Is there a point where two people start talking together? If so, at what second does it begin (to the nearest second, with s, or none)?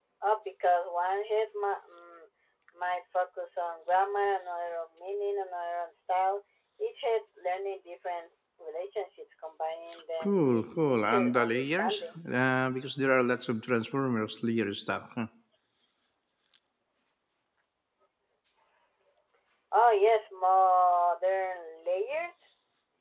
10 s